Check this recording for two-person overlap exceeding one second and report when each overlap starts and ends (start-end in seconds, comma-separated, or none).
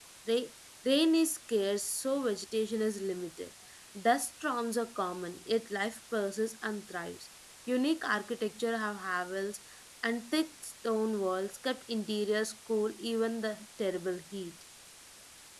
none